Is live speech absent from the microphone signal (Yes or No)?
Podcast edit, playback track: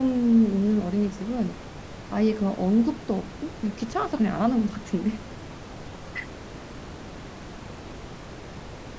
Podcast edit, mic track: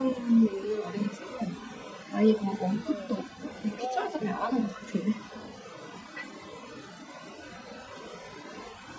No